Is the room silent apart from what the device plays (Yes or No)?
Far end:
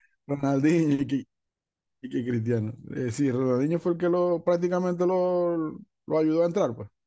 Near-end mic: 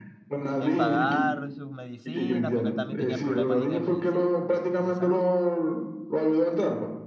No